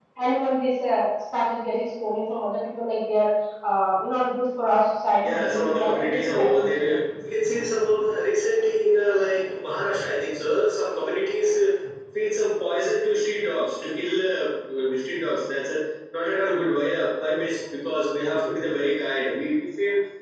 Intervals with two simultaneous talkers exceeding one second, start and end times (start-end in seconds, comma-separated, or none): 5.2-7.0